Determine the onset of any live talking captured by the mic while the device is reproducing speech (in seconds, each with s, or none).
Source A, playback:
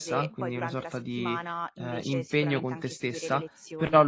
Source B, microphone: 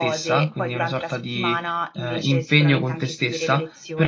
none